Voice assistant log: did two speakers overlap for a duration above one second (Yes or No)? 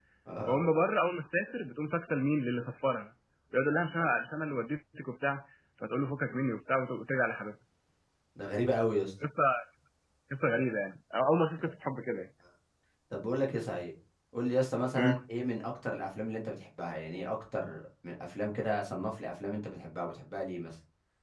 No